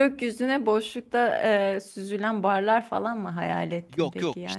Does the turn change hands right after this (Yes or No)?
Yes